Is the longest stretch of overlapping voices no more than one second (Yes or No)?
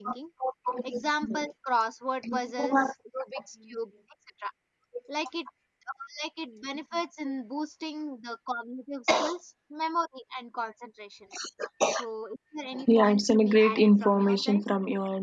No